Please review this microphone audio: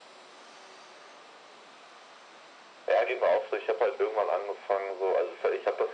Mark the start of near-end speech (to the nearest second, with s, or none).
none